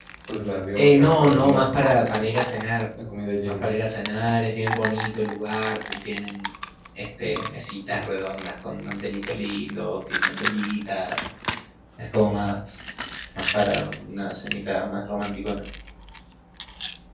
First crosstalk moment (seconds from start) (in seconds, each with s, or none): 0.8 s